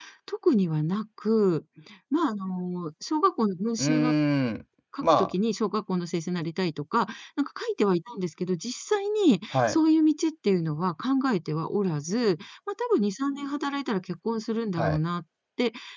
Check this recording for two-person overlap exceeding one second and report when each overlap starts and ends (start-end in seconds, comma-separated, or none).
none